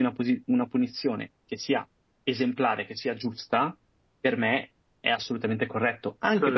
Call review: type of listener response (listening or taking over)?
listening